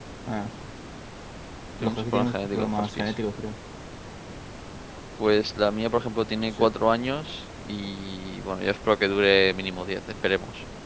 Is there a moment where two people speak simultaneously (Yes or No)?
Yes